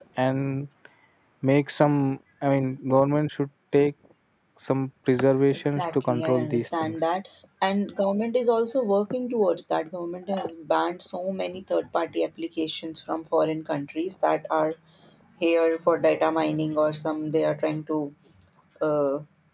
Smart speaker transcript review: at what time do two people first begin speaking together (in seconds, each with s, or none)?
5.7 s